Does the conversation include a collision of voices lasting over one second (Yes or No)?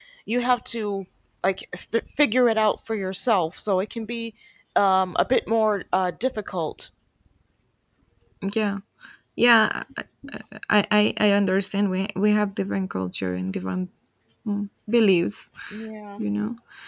No